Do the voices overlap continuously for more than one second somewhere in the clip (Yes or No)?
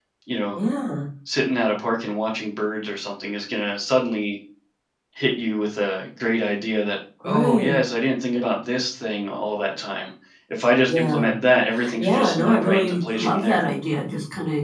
Yes